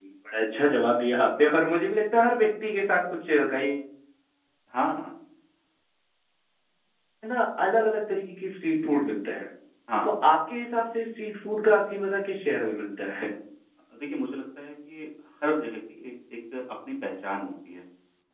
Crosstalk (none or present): none